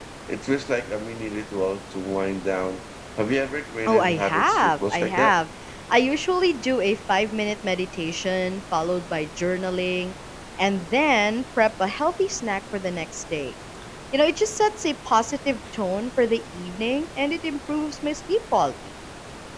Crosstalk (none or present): present